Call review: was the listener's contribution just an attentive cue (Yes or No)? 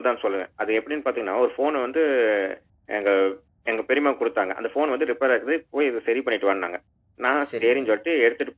Yes